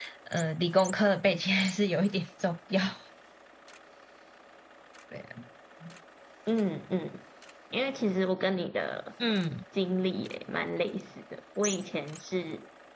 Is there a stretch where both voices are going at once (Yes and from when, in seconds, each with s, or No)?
No